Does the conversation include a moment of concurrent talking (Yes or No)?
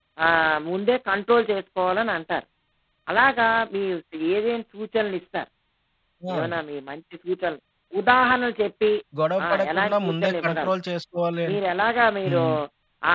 Yes